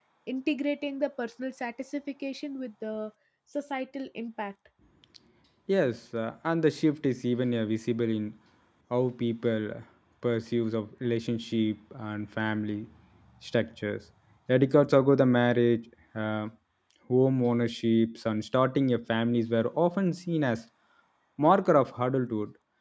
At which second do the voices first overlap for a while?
none

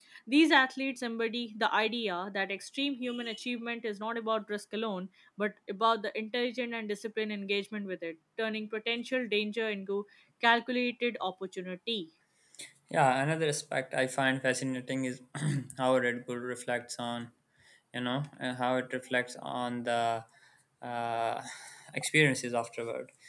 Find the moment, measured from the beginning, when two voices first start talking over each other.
none

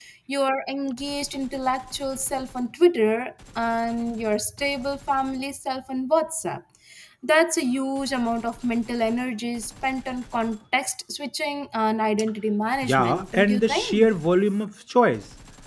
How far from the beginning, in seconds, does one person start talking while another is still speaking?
12.8 s

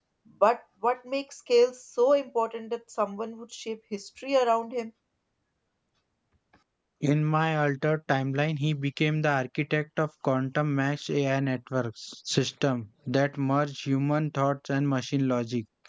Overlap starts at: none

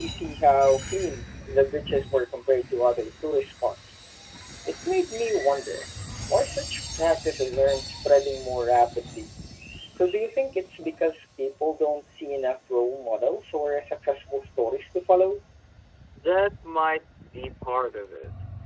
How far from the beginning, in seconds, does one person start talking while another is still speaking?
none

